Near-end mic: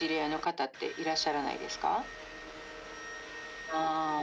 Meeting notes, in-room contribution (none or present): none